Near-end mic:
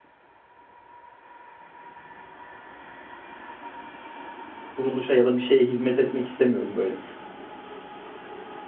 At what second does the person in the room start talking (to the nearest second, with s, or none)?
5 s